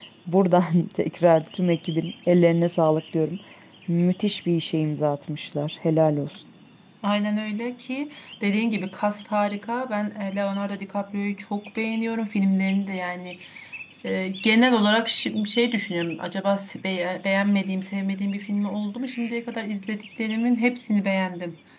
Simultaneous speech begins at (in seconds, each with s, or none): none